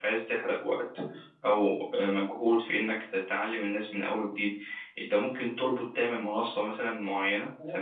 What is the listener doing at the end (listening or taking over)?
taking over